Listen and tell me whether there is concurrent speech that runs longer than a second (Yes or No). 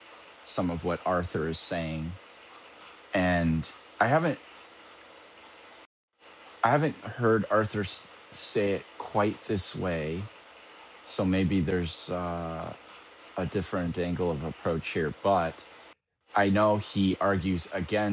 No